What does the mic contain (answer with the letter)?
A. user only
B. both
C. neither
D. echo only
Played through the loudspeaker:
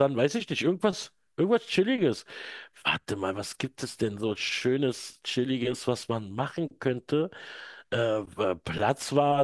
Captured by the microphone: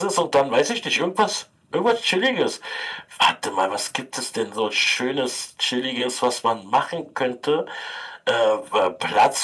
D